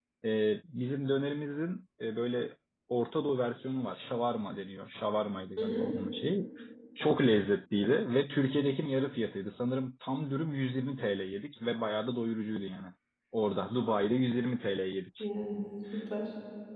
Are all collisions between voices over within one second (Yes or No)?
Yes